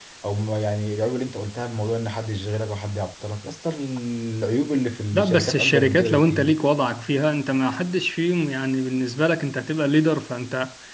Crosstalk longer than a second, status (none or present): present